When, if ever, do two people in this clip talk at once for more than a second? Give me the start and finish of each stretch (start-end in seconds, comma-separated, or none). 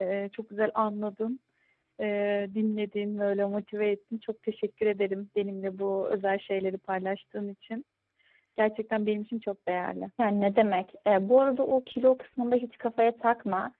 none